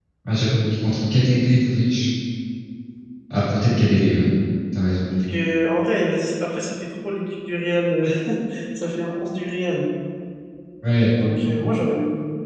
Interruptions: none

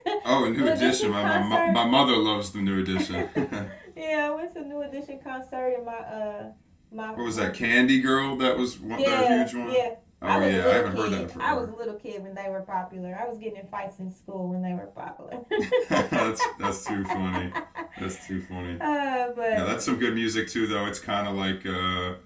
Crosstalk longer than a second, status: present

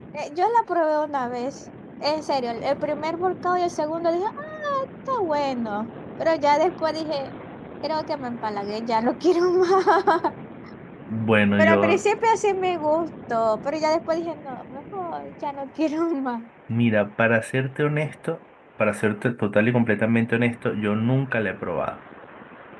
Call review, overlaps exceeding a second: none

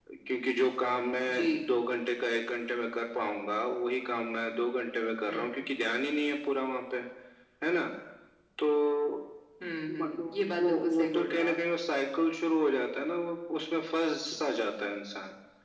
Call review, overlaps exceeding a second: present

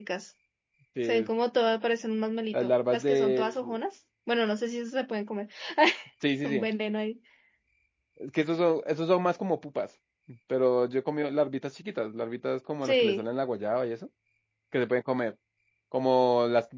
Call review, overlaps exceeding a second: present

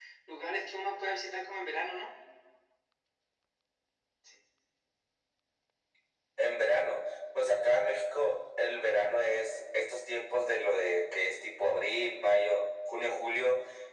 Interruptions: none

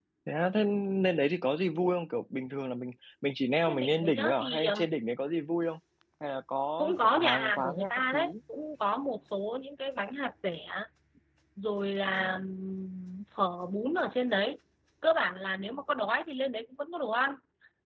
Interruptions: present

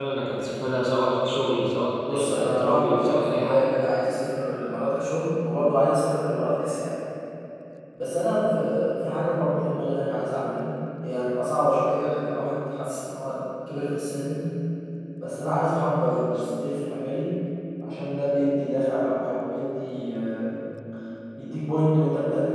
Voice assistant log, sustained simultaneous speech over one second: present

